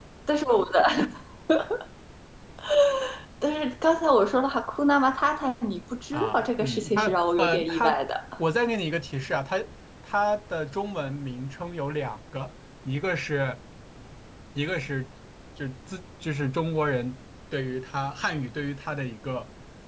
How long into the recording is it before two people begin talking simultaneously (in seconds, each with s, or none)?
6.1 s